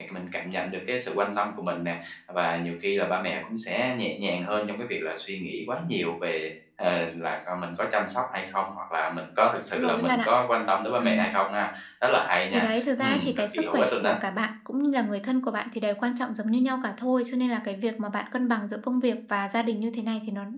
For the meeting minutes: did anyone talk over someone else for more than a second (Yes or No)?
Yes